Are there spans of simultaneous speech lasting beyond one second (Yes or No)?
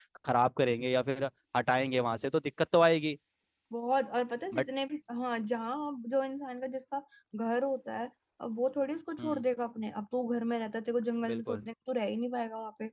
No